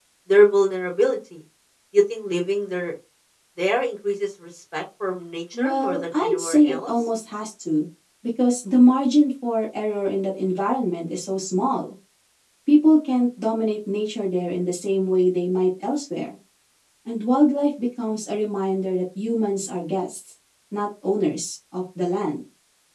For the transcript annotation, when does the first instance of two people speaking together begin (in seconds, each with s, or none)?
5.5 s